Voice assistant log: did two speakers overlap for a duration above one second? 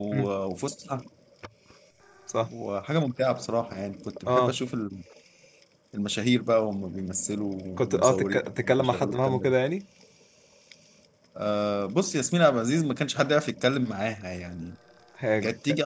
Yes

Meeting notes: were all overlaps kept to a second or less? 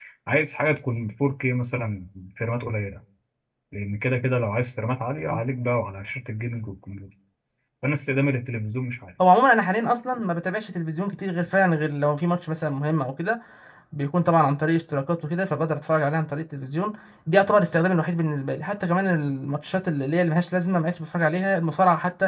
Yes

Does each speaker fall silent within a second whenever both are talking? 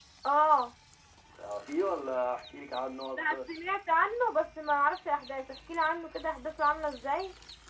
Yes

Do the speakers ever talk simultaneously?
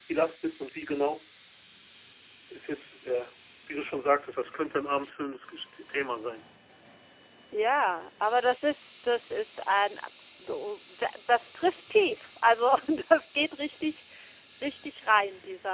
No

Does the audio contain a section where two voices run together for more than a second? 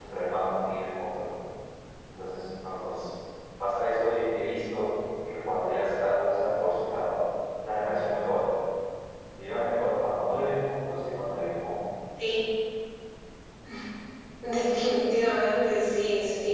No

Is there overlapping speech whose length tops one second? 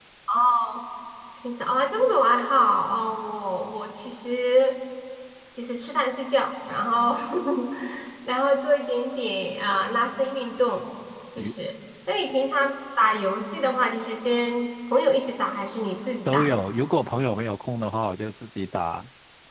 No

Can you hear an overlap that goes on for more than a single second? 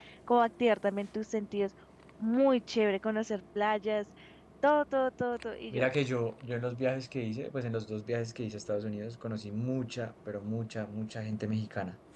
No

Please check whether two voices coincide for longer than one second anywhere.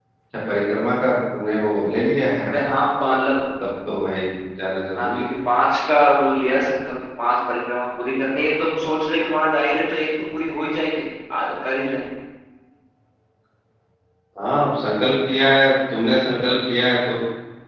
No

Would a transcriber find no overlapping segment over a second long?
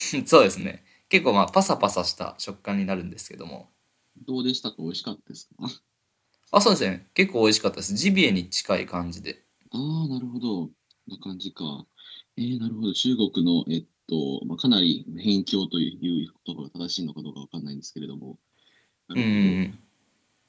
Yes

